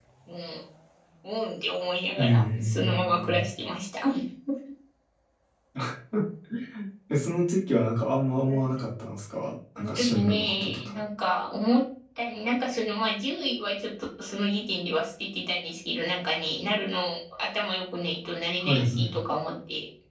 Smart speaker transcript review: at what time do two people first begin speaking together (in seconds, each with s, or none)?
2.2 s